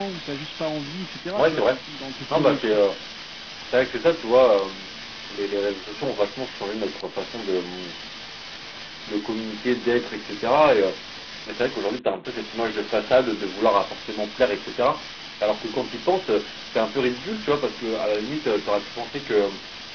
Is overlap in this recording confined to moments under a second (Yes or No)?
Yes